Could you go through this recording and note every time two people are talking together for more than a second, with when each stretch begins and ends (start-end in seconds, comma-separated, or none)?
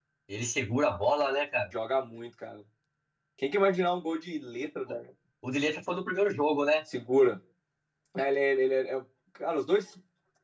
none